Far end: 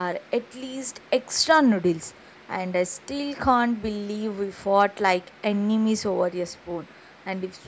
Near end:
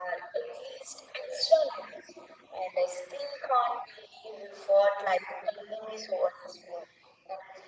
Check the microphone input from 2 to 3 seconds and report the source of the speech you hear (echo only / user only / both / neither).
echo only